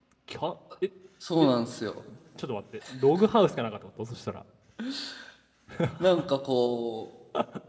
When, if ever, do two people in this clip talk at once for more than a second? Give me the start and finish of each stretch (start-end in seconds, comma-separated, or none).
none